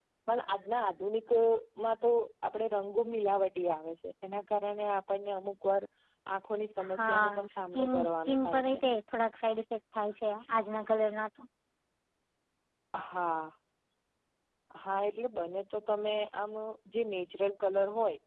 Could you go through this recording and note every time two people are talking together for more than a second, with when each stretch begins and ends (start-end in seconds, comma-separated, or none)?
6.8-8.8